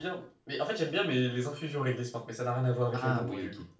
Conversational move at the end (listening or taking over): taking over